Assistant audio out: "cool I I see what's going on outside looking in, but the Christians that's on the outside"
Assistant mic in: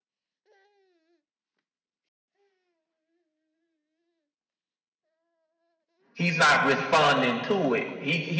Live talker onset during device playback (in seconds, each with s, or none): 6.1 s